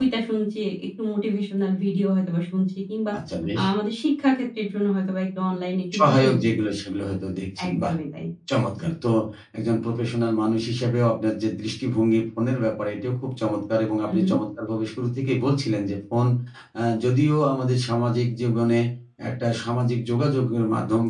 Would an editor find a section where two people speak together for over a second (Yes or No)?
No